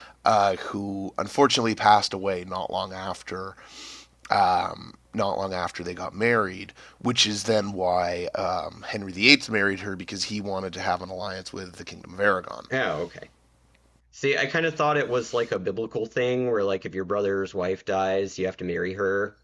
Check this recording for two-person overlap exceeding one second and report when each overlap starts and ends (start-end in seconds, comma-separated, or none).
none